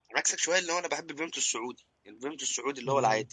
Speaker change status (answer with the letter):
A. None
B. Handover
B